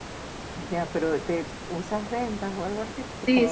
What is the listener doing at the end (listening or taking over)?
taking over